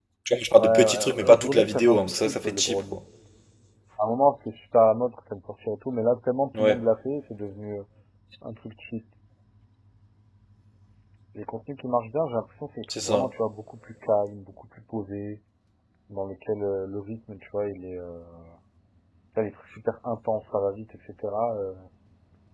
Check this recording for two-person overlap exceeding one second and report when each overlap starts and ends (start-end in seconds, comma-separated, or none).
0.6-3.0